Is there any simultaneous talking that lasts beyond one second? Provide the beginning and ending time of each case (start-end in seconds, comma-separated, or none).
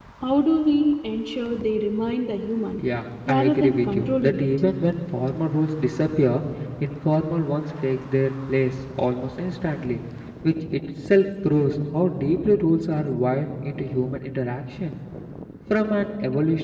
3.3-4.5